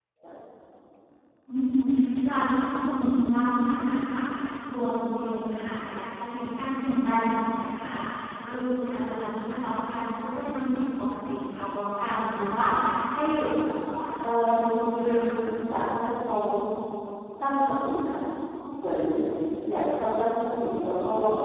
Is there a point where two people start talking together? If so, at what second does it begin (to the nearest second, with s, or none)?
14 s